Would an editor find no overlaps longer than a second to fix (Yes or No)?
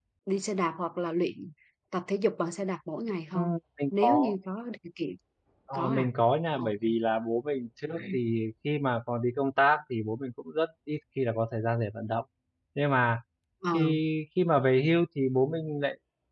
Yes